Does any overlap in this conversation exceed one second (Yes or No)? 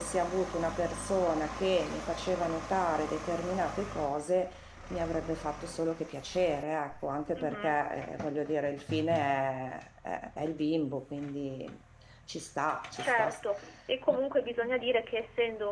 No